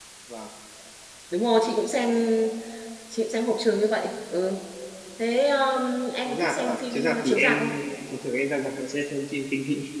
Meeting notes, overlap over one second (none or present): present